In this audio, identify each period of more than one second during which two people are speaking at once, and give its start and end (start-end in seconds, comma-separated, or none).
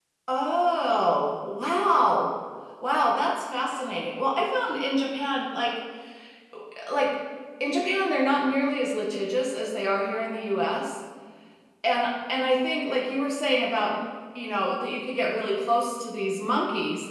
none